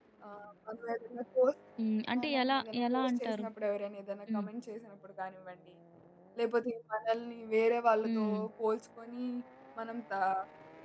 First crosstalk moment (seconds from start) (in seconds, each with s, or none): 2.2 s